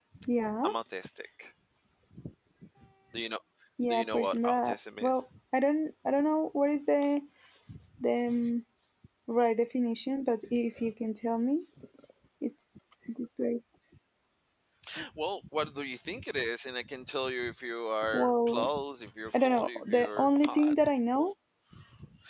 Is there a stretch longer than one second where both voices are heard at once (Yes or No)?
Yes